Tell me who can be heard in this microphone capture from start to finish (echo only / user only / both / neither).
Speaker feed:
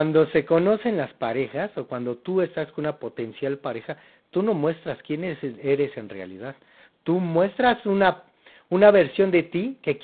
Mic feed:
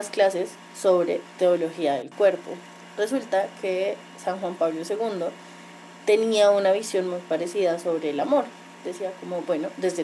user only